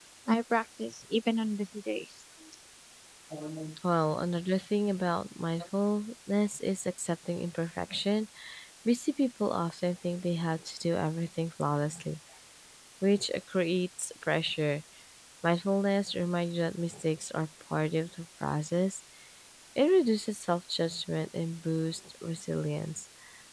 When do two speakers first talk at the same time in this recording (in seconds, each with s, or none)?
none